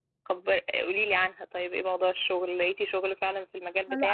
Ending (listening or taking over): taking over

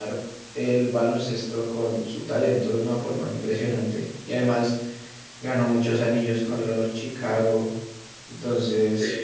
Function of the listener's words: listening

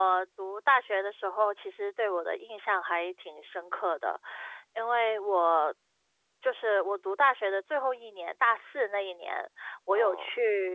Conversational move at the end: listening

